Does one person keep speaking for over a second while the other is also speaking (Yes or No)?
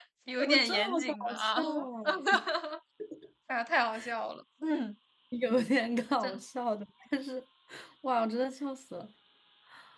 Yes